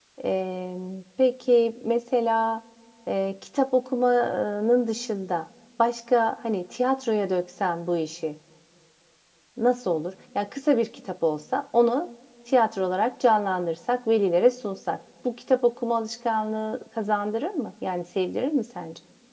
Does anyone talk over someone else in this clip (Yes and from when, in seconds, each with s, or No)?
No